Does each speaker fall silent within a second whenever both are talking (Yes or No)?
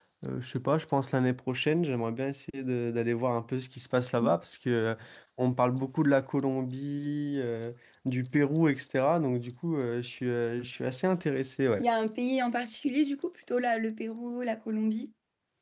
Yes